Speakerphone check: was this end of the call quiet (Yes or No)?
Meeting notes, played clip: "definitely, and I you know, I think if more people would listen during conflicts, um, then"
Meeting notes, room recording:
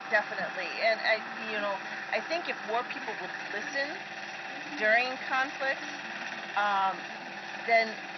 Yes